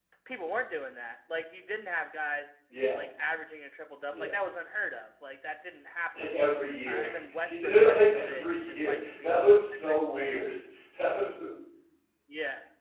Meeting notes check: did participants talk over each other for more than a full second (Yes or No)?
Yes